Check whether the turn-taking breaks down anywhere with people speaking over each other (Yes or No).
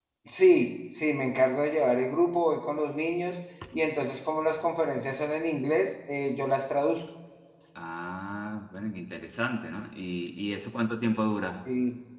No